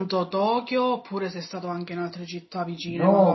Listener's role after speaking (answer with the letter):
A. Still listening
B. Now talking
B